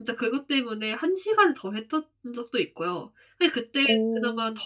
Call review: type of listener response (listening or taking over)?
listening